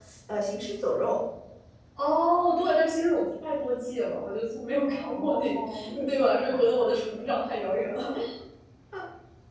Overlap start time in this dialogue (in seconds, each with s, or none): 4.8 s